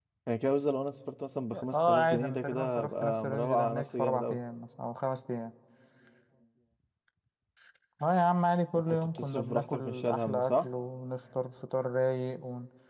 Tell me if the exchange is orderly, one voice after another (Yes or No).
No